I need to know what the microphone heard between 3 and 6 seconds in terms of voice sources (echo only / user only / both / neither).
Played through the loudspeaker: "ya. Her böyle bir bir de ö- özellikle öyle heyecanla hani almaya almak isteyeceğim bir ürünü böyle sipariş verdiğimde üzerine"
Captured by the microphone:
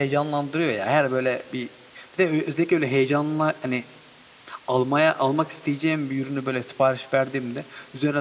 echo only